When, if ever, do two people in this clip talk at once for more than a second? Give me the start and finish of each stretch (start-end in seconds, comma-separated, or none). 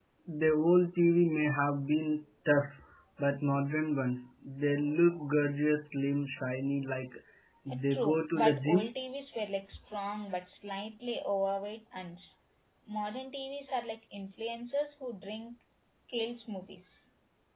7.7-8.9